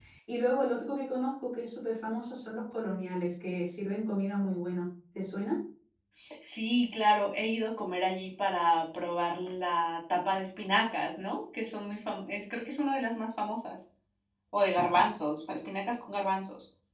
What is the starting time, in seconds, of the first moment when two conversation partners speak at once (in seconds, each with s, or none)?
none